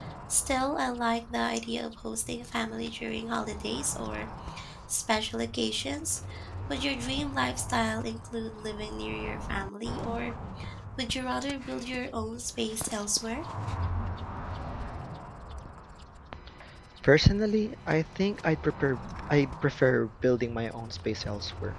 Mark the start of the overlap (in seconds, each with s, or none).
none